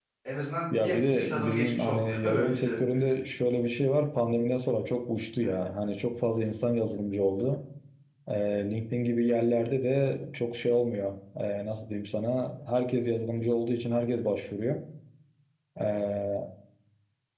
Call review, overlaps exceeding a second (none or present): present